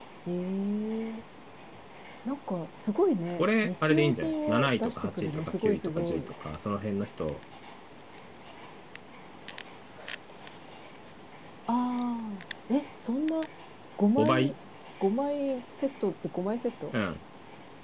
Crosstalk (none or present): present